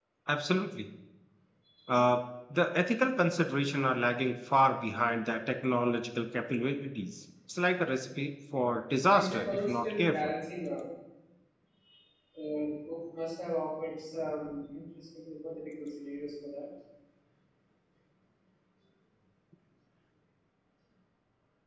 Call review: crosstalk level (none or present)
present